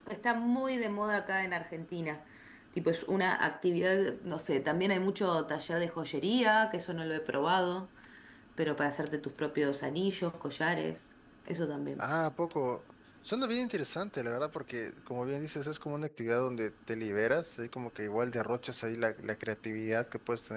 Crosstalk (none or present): none